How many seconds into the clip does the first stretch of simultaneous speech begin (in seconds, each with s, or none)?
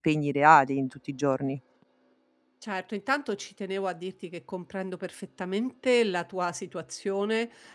none